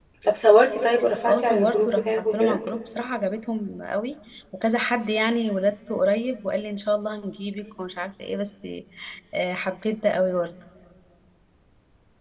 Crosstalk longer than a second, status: present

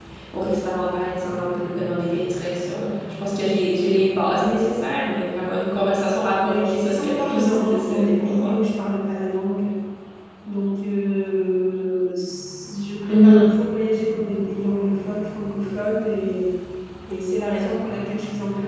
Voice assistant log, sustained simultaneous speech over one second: present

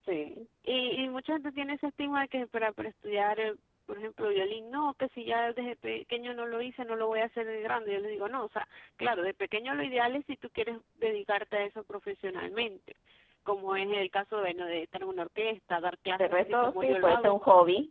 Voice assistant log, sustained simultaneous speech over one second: present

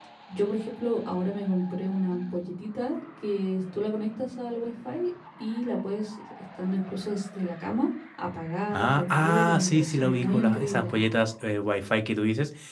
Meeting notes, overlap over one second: present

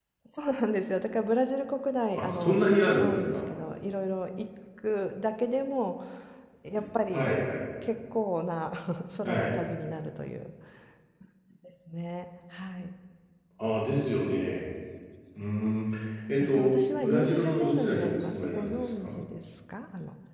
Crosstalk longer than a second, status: present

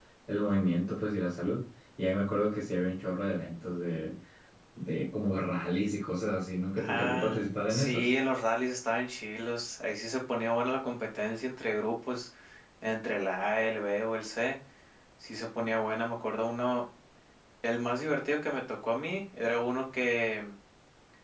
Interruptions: present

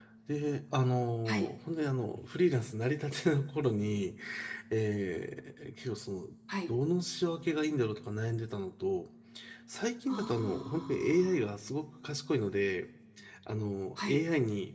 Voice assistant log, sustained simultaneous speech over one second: present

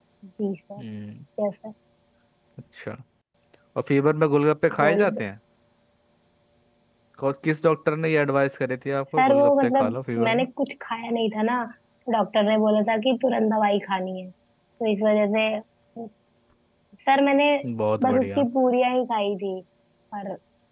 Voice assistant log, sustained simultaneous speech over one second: present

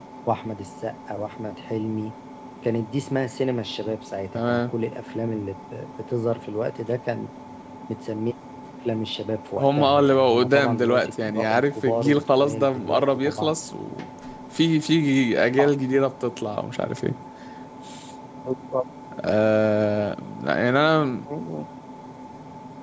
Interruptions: present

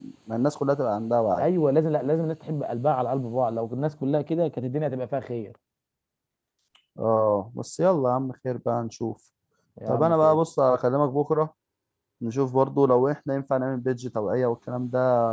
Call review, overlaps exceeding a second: none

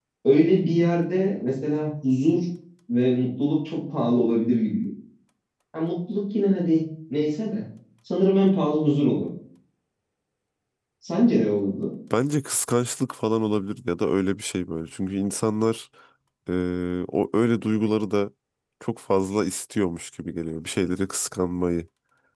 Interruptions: none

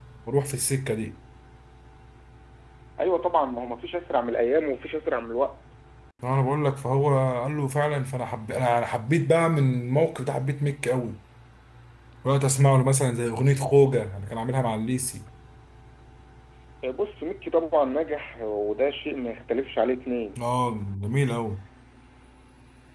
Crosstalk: none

